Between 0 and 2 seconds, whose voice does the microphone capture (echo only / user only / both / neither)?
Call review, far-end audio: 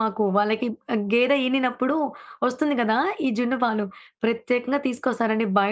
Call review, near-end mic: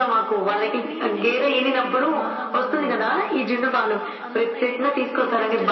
both